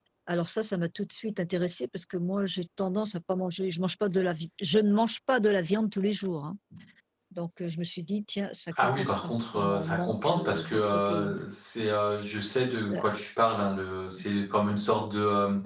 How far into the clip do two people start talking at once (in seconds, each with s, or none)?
8.7 s